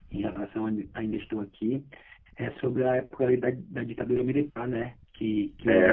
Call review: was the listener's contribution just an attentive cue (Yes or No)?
Yes